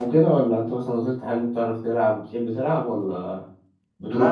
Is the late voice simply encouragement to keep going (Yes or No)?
No